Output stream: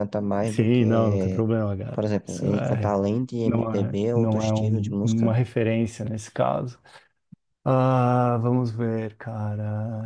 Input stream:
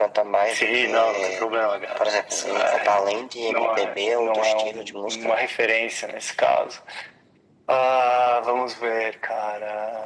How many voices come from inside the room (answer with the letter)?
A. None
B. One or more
A